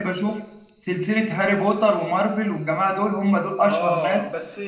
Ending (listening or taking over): taking over